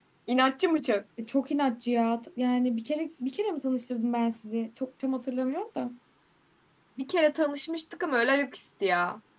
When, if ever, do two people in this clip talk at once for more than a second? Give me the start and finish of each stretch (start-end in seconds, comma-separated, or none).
none